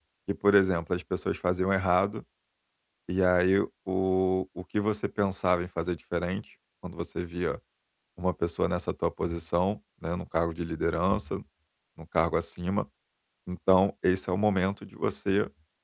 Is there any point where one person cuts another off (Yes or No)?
No